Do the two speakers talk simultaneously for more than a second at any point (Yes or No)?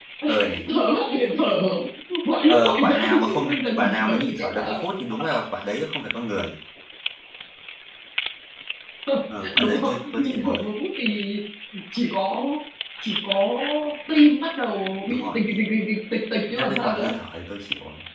Yes